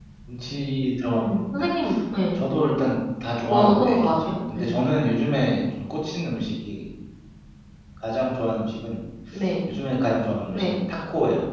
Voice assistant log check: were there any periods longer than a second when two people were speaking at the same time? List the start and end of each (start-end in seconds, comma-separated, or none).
3.4-4.7